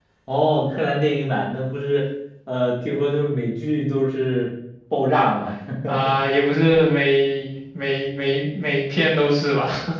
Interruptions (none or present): none